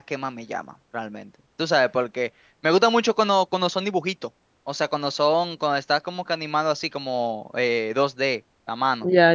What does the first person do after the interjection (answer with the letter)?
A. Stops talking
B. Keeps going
A